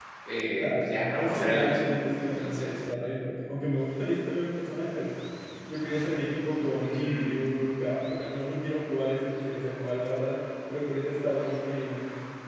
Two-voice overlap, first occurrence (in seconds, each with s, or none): 0.6 s